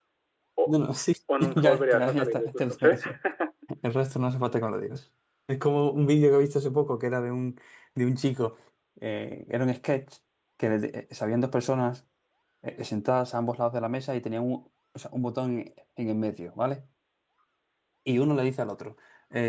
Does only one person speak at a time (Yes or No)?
No